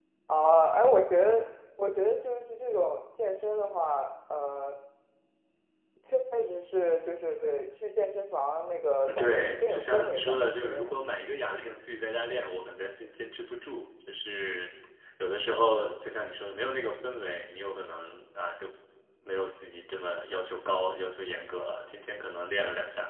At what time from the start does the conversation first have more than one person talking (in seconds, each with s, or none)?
9.0 s